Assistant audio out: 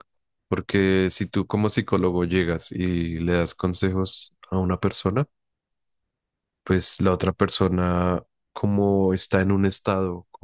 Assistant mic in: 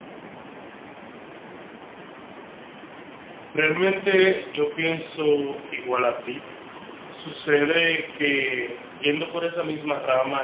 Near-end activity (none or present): present